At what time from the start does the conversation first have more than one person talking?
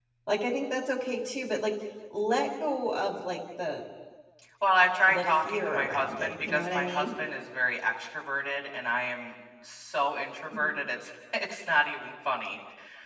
5.1 s

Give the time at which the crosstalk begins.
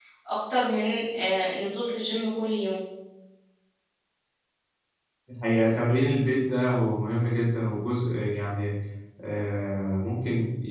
none

